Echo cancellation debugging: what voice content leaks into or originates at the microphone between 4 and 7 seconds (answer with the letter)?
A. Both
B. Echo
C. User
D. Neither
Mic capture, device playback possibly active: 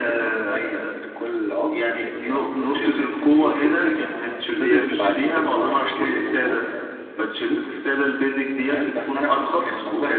A